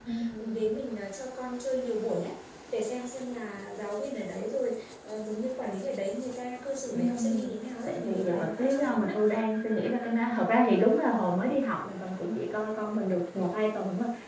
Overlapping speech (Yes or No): Yes